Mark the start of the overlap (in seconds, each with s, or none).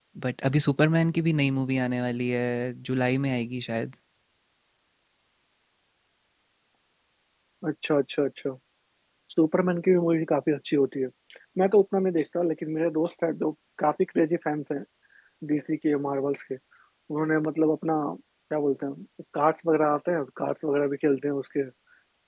none